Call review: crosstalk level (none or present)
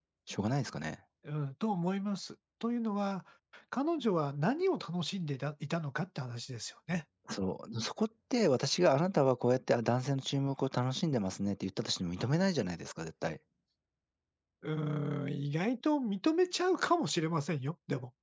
none